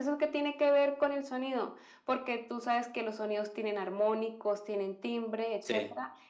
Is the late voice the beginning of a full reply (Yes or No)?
Yes